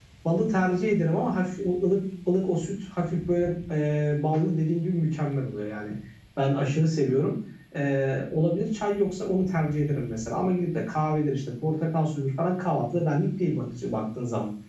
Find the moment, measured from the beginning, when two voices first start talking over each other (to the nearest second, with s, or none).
none